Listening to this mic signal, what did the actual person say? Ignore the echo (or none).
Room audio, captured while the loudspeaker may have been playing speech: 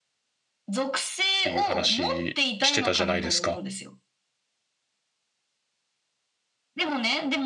ていう話してたじゃないですか。